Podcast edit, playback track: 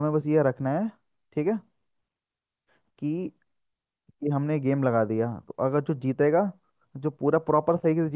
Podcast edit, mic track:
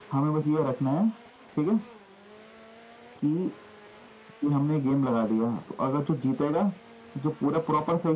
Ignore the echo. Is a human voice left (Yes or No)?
No